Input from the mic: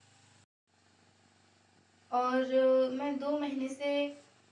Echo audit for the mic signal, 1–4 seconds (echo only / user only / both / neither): user only